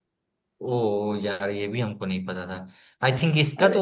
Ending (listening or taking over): listening